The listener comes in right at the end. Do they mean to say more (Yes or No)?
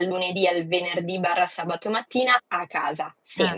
No